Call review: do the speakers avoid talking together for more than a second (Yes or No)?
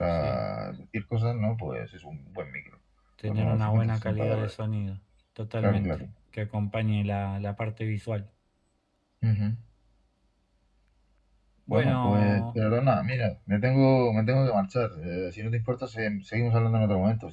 No